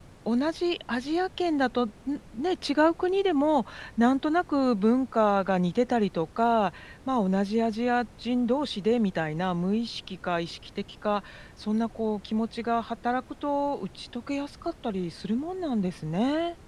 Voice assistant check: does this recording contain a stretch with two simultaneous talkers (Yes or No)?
No